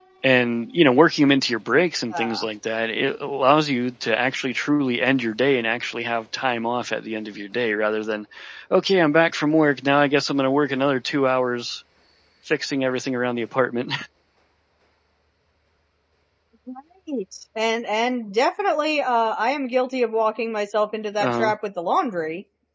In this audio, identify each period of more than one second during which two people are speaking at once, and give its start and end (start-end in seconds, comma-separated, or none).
none